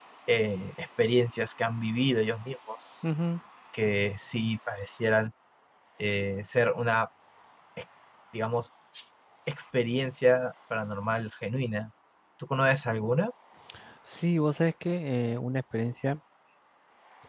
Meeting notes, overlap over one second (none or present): none